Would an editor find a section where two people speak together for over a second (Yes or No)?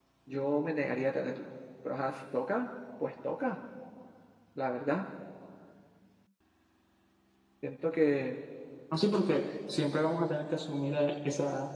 No